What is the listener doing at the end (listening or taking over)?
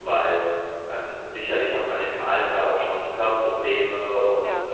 listening